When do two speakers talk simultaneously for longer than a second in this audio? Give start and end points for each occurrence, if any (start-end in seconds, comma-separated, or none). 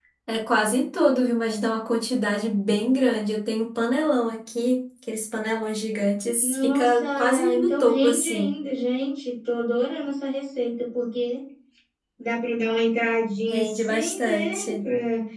6.4-8.5, 13.5-14.8